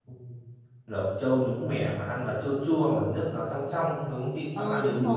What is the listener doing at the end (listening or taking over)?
taking over